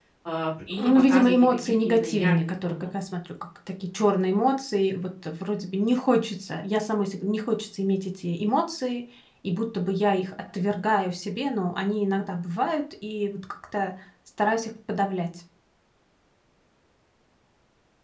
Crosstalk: present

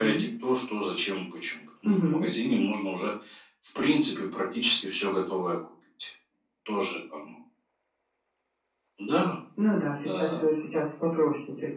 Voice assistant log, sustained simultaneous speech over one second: none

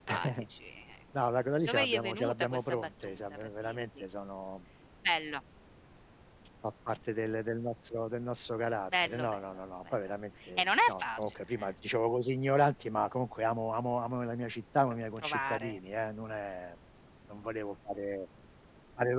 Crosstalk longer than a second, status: present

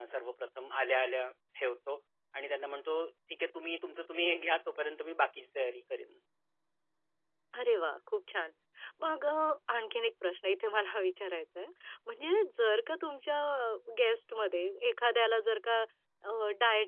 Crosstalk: none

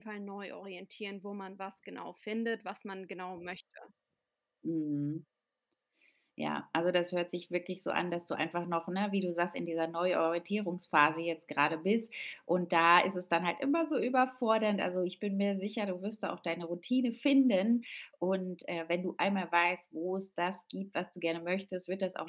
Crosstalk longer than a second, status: none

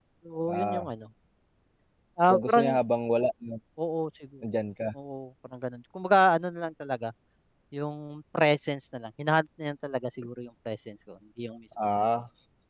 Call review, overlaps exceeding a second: none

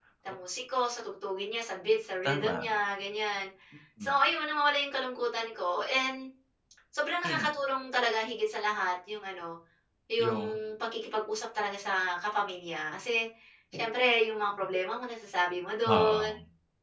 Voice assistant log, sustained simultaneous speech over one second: none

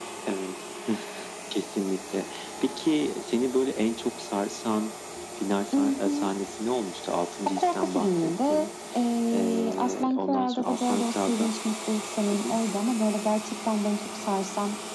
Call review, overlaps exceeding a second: present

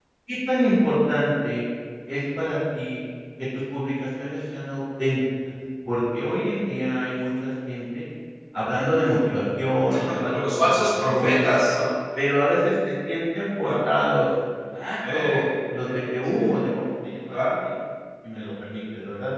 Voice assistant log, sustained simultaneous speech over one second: present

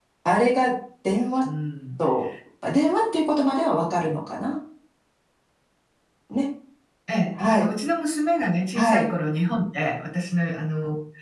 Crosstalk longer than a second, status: none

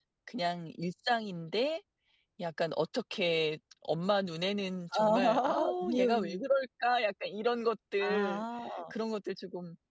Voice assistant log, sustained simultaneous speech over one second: present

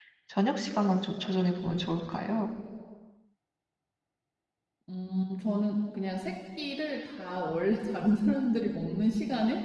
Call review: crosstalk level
none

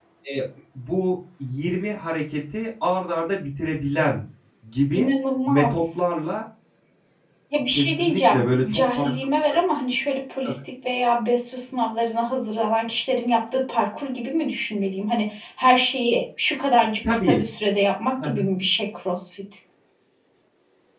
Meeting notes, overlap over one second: present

